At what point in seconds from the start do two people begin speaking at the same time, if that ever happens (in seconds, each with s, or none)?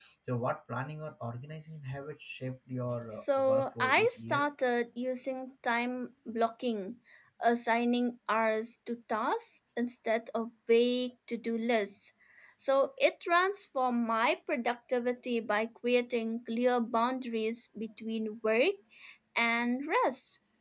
3.1 s